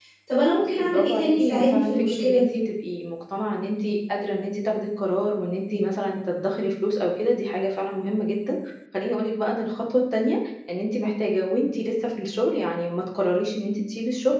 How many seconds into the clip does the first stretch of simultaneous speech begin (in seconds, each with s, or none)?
0.8 s